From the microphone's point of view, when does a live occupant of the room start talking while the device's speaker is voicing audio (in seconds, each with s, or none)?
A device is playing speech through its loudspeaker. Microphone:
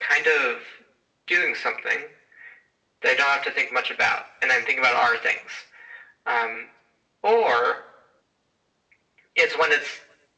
none